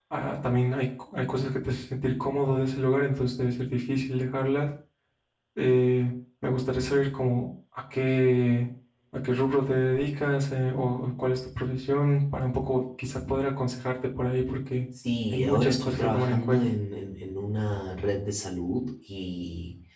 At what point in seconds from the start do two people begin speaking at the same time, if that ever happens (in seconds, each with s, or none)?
15.3 s